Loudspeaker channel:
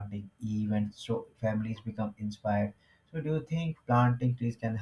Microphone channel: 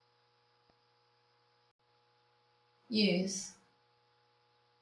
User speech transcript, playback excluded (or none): Yes.